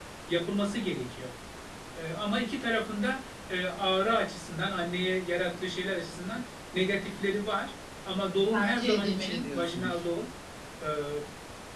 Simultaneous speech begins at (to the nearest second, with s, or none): 8 s